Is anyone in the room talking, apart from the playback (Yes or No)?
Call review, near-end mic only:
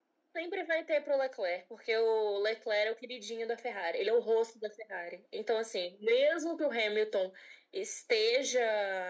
No